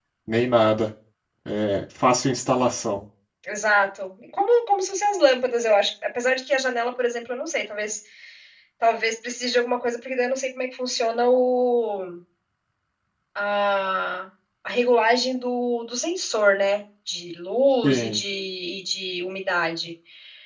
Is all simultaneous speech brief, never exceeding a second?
Yes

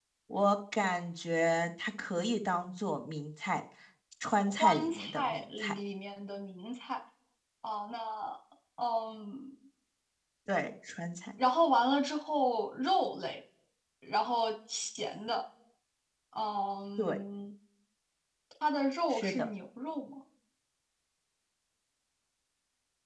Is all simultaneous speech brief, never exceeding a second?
No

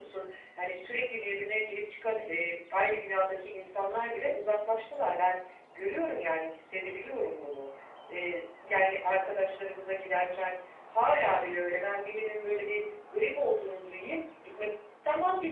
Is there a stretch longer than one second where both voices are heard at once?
No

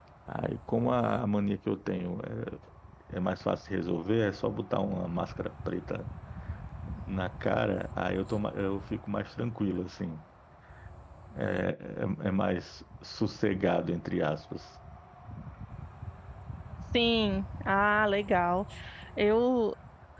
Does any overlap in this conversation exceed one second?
No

